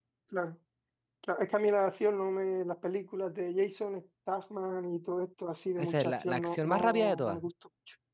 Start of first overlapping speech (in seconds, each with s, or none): 5.8 s